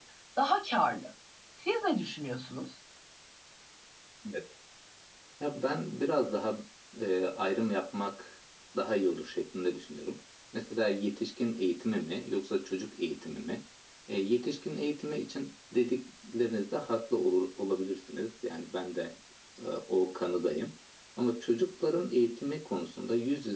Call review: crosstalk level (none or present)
none